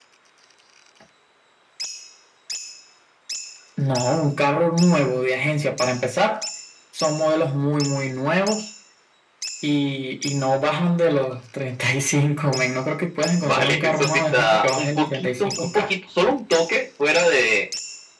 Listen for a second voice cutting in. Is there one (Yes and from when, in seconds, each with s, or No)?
Yes, from 13.4 s